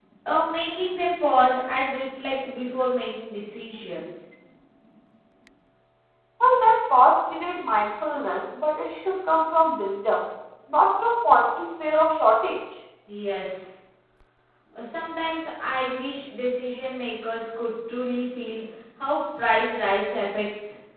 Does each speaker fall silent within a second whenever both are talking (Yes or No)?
Yes